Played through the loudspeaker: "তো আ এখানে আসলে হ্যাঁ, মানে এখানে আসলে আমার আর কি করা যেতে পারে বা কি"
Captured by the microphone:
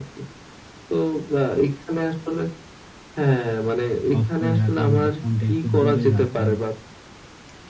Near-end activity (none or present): present